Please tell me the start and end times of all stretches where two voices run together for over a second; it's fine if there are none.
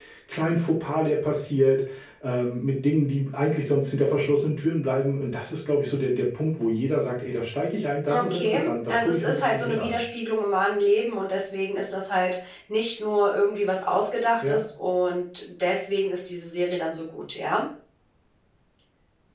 8.1-10.0

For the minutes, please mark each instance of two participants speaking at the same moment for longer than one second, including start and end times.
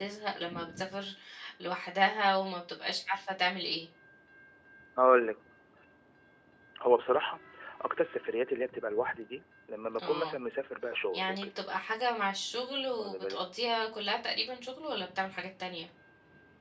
none

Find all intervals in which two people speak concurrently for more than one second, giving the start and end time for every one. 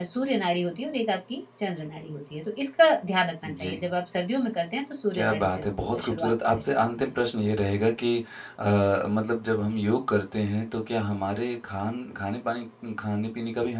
5.1-6.6

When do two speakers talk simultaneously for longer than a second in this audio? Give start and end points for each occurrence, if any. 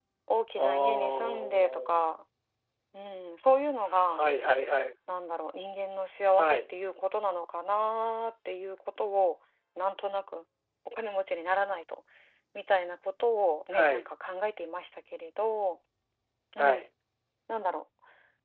0.6-2.0

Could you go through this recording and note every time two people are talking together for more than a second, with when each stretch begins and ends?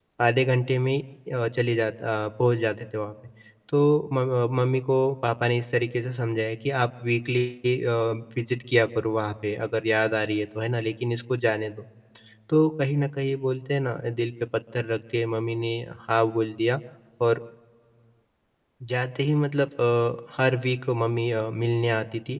none

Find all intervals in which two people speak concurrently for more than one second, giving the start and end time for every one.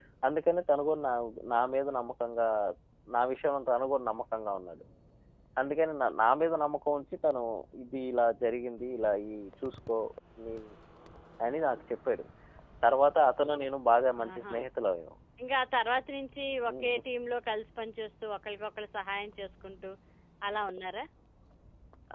none

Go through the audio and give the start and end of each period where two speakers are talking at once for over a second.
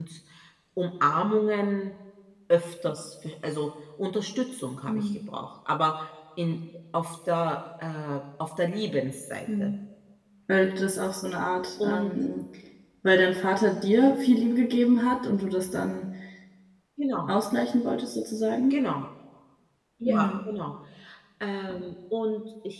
none

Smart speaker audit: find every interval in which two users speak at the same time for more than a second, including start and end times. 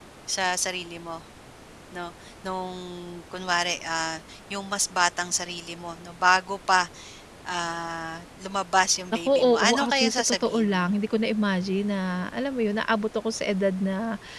9.1-10.8

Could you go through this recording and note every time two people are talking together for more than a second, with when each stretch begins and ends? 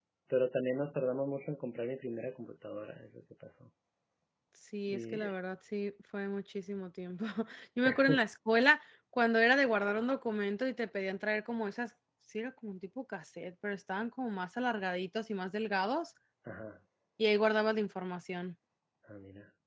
none

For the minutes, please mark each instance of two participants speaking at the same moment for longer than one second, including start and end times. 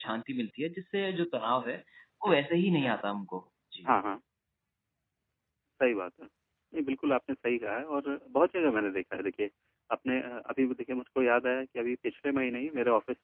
none

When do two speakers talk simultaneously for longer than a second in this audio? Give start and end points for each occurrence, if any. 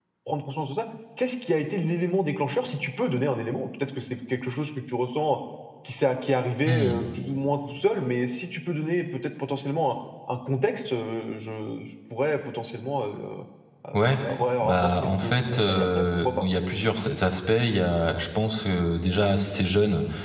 14.6-16.4

